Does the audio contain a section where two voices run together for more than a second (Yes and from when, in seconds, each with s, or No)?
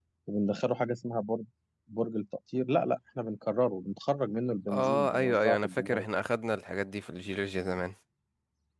Yes, from 4.7 s